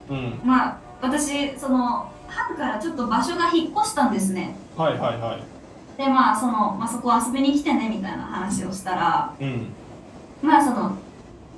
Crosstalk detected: No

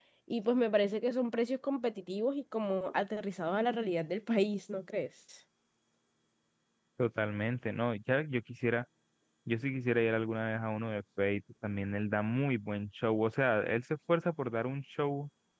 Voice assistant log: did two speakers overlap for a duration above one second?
No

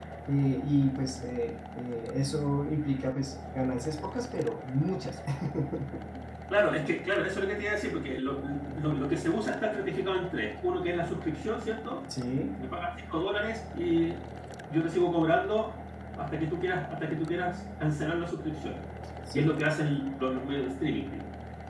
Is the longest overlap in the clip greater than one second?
No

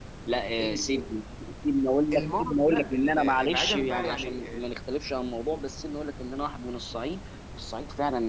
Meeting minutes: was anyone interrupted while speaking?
Yes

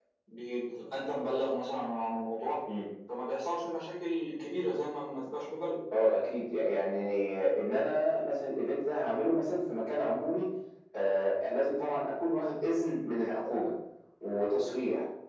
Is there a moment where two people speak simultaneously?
No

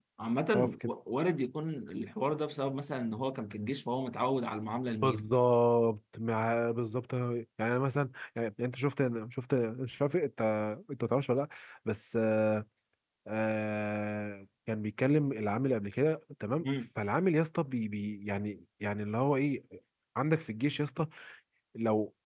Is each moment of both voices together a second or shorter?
Yes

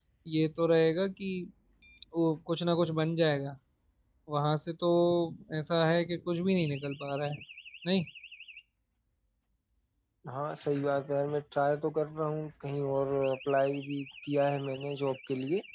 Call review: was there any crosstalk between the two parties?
No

